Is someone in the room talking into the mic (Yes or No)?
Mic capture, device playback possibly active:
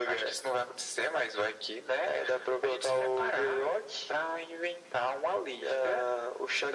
No